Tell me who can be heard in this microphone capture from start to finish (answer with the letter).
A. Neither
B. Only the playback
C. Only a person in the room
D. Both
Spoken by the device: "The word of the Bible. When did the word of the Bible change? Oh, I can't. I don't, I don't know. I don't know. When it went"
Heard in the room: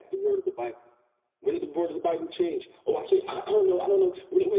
B